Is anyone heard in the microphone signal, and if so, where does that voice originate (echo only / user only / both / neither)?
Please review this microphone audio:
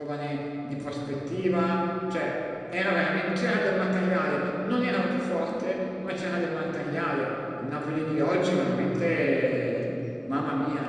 user only